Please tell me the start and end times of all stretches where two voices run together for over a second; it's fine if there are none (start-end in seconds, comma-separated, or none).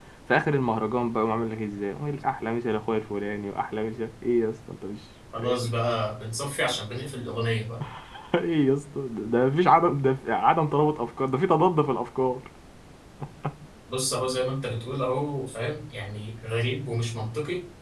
none